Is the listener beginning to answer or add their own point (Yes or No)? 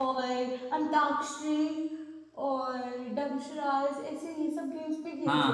Yes